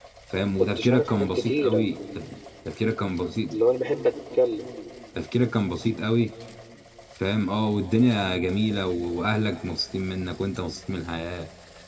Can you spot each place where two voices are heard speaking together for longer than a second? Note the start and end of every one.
0.6-1.9

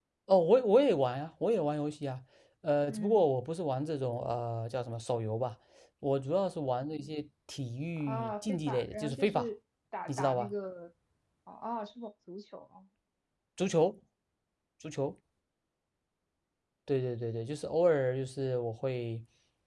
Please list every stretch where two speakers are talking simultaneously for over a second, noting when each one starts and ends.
8.0-9.5

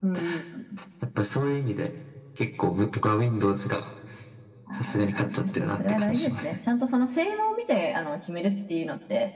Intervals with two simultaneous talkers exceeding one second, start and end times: 4.7-6.6

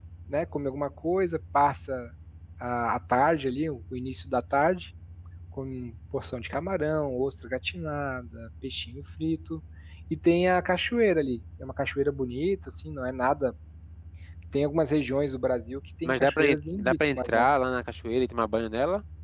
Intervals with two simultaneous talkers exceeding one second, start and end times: 16.0-17.5

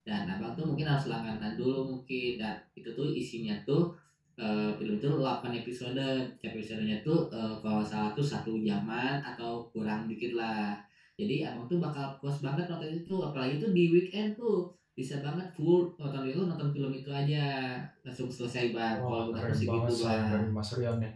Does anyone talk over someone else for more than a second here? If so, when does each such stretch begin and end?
18.9-20.5

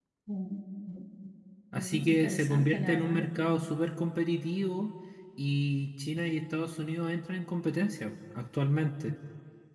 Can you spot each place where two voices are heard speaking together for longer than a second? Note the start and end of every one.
1.8-3.2

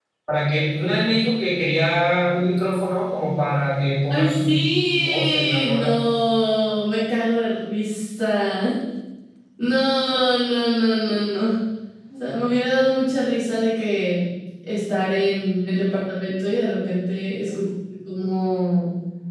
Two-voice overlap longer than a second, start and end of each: 4.1-5.9

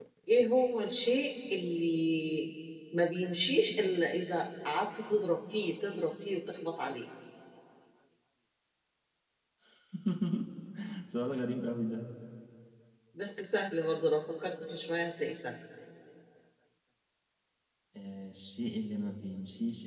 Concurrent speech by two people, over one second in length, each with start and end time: none

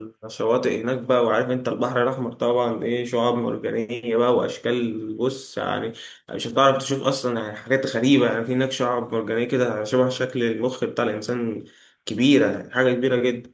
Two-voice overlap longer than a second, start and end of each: none

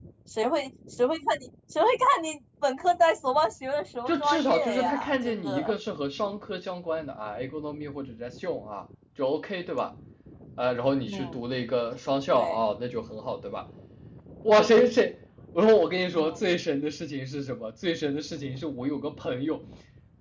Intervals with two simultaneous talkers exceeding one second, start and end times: 4.1-5.7

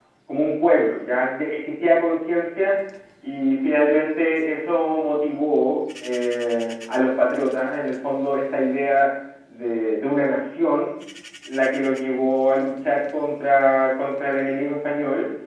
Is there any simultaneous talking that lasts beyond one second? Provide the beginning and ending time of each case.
none

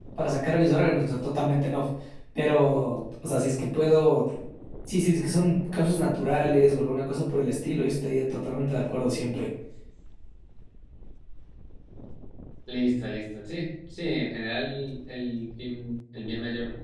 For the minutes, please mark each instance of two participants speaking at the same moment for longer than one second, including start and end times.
none

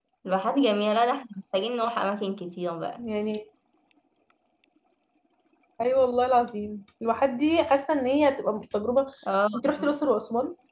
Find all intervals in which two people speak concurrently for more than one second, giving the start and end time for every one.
none

